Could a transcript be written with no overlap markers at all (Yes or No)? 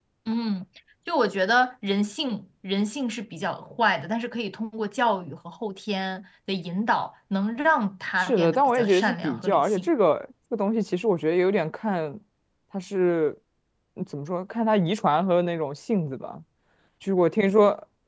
No